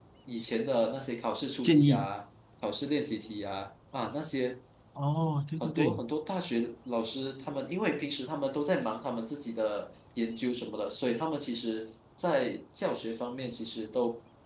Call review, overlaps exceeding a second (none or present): none